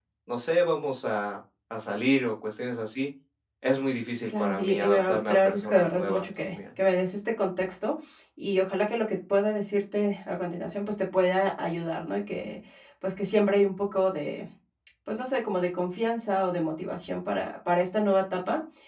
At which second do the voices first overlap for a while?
4.3 s

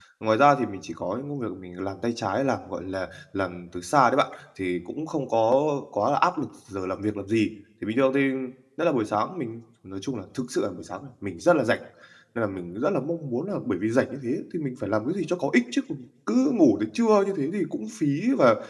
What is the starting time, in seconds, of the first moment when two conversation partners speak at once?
none

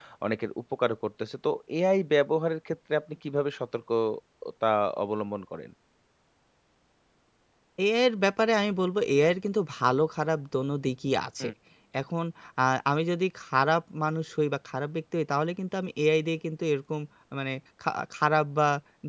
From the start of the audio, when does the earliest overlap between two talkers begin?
none

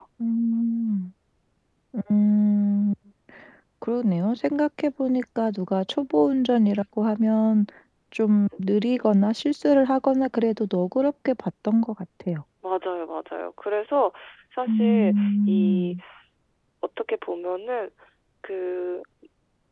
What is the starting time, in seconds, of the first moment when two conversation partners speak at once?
14.7 s

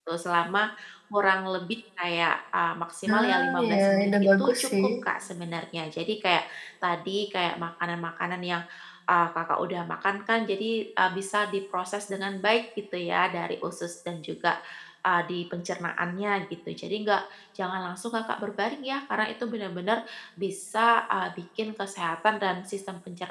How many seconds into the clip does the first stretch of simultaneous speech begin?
3.1 s

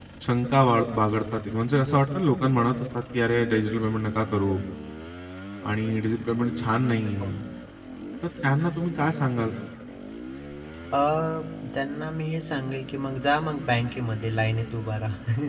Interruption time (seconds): none

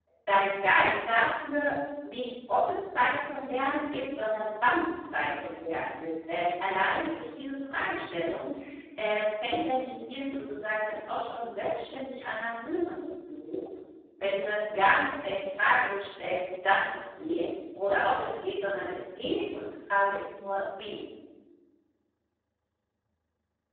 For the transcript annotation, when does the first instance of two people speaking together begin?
none

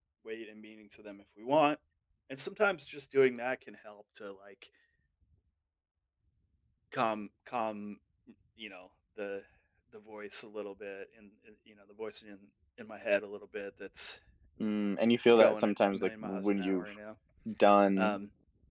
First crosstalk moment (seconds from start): 15.4 s

